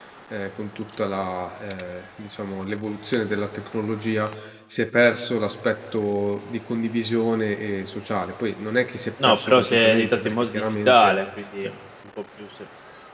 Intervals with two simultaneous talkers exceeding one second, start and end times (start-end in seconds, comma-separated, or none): 9.2-11.2